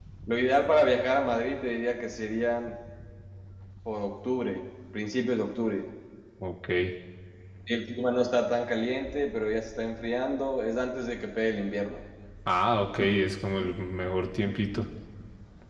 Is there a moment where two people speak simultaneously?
No

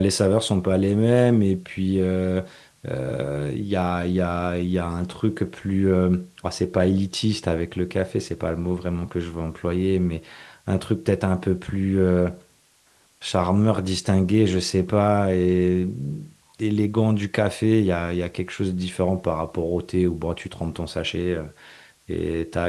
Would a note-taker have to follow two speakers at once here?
No

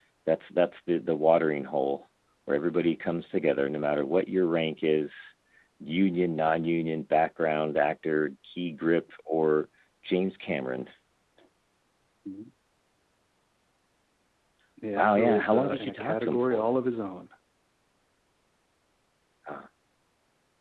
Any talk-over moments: Yes, from 15.0 s

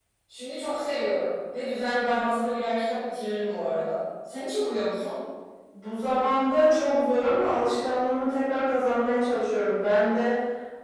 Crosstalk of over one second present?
No

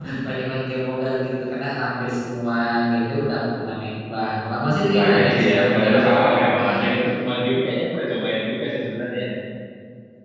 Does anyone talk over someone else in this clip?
Yes, from 4.9 s

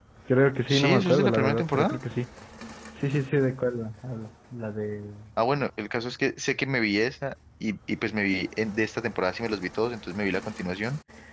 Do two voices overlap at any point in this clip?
Yes, from 0.7 s

